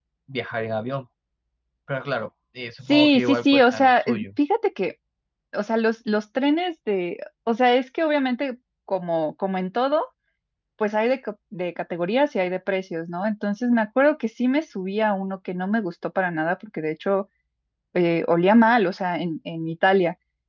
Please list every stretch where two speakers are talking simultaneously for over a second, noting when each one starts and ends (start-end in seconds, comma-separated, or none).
2.9-4.2